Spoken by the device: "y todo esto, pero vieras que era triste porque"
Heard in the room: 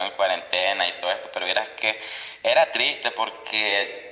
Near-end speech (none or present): none